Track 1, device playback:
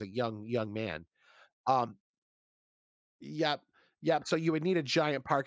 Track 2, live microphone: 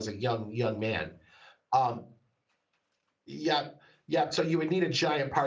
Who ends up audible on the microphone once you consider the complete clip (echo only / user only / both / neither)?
echo only